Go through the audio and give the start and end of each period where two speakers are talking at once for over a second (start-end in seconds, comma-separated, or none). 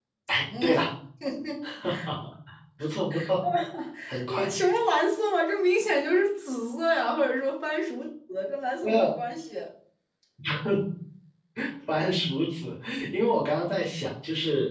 none